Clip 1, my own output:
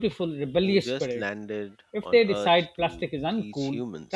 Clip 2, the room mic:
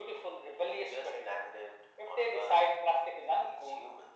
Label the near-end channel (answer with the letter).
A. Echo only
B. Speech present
A